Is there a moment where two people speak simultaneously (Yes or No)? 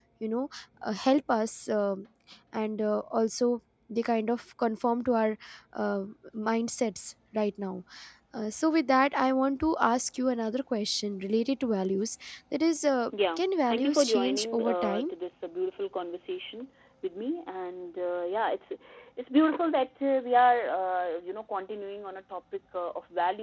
Yes